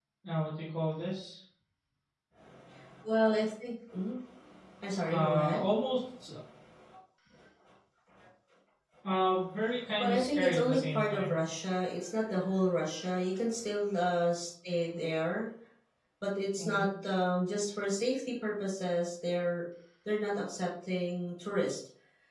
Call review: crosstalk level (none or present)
present